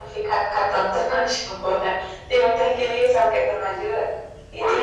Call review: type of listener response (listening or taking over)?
listening